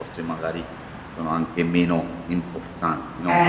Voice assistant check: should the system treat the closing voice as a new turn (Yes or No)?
Yes